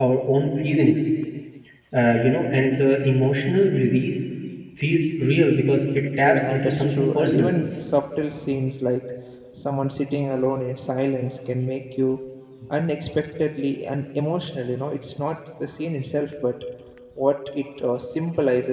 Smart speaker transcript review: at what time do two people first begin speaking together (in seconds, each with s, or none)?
6.2 s